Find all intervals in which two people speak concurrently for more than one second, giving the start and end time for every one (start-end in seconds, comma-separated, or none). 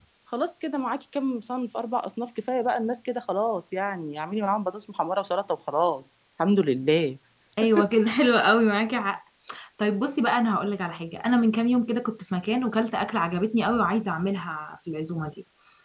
none